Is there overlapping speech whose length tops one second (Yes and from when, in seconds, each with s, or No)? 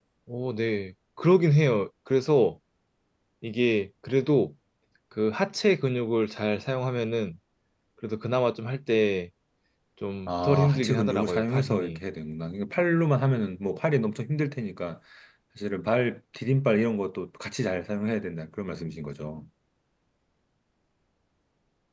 Yes, from 10.3 s